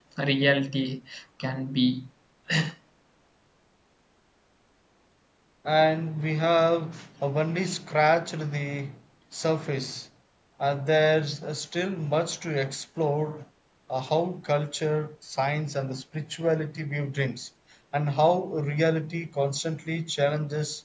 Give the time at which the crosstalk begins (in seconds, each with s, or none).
none